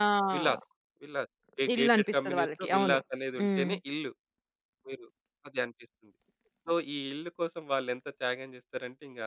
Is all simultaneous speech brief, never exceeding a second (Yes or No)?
No